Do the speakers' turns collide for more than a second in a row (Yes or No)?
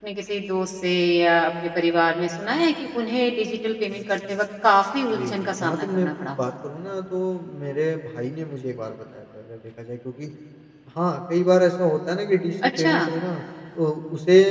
Yes